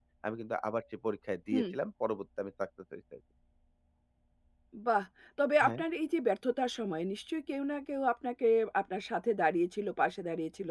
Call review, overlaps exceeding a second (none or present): none